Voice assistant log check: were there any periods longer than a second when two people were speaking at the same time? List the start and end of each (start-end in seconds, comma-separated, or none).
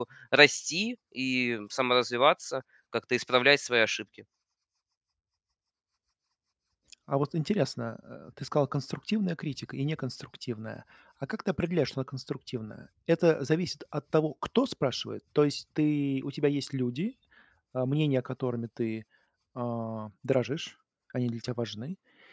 none